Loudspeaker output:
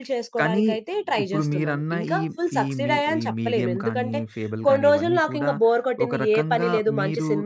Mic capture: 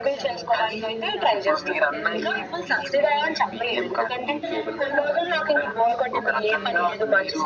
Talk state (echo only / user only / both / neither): both